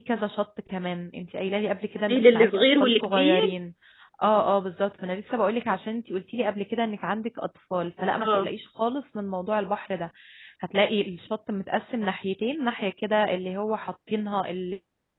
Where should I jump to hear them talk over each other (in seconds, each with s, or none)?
2.1 s